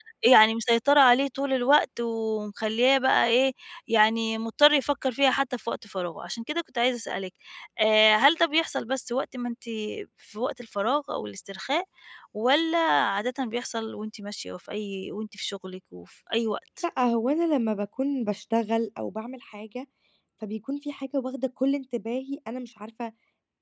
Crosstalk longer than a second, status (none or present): none